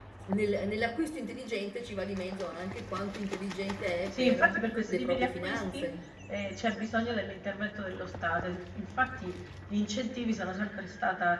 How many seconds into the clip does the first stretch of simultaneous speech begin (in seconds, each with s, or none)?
4.1 s